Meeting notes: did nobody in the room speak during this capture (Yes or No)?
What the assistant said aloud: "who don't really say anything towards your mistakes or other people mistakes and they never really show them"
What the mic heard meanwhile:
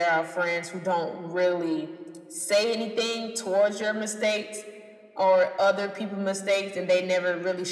Yes